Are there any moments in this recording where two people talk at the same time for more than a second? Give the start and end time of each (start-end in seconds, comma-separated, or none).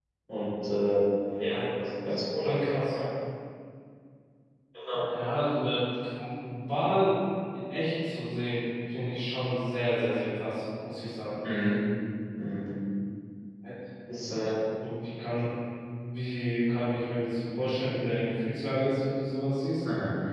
1.5-3.0